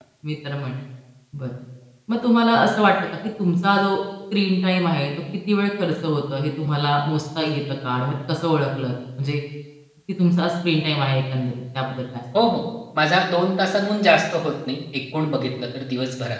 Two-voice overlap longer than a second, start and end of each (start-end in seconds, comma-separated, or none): none